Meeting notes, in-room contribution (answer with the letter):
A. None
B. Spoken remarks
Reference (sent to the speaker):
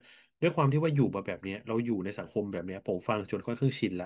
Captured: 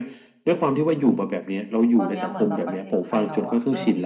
B